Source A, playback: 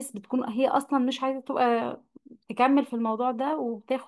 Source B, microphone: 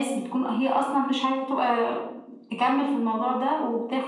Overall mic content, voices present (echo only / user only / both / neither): echo only